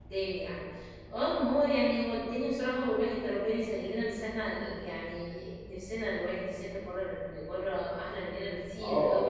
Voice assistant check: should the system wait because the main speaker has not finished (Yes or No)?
No